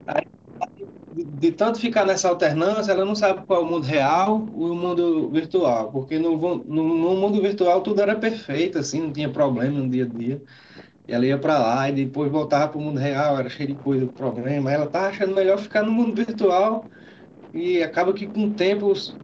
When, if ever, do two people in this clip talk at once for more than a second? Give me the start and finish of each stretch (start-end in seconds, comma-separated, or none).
none